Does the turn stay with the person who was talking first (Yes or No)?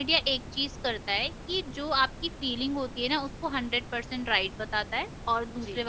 Yes